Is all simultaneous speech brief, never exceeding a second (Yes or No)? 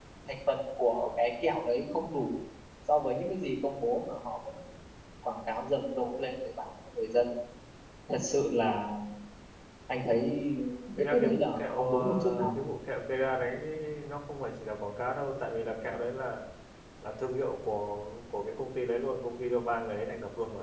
No